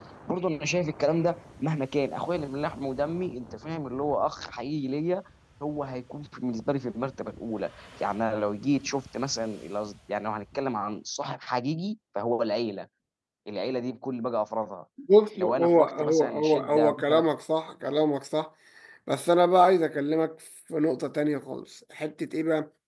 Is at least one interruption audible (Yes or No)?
Yes